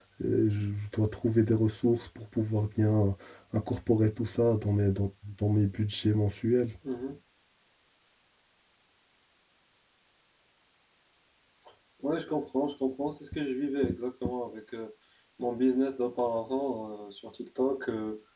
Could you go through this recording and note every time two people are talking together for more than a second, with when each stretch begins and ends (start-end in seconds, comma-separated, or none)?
none